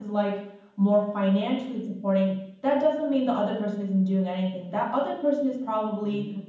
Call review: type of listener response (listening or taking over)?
listening